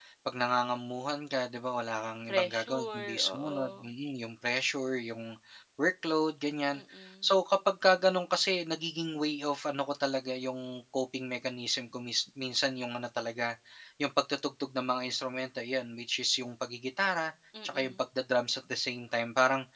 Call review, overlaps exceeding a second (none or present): present